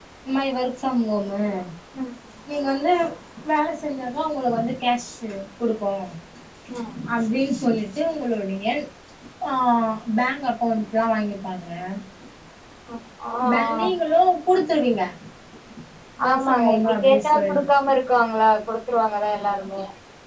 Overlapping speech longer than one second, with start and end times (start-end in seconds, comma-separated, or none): 16.3-17.6